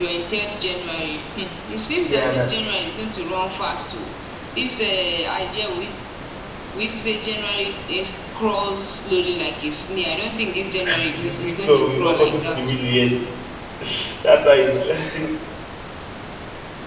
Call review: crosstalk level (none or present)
present